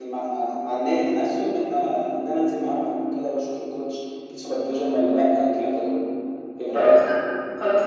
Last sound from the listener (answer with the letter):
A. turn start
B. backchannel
A